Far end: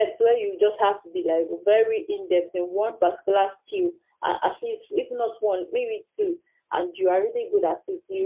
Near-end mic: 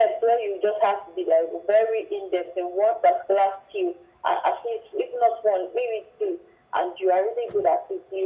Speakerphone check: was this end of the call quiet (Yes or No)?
Yes